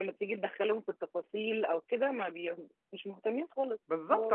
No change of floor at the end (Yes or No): No